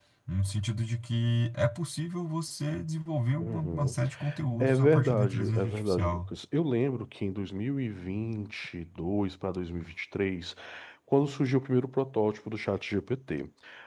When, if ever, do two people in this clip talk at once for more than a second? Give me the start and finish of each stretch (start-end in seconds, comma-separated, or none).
4.6-6.2